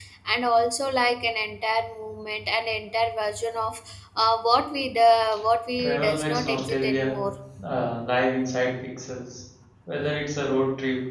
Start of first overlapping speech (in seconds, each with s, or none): 5.8 s